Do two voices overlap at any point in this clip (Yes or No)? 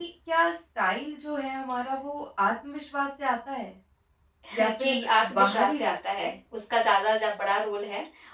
Yes